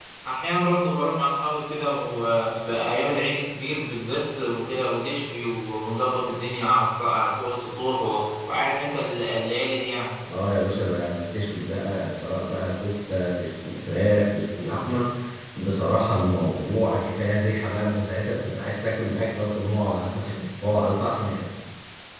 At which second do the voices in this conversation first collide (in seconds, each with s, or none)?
none